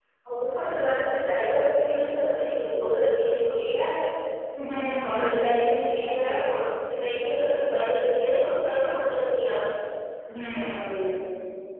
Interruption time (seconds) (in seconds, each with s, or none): 4.8 s